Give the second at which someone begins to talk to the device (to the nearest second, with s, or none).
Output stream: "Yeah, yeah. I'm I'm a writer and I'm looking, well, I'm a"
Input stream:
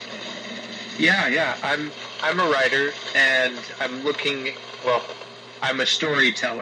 none